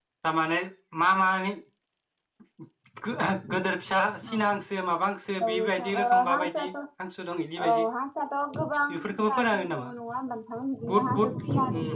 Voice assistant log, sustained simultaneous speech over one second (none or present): present